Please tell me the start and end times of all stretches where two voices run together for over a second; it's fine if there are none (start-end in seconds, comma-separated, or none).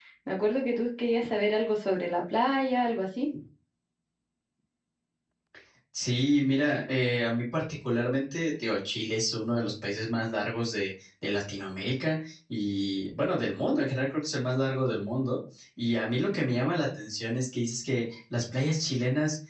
none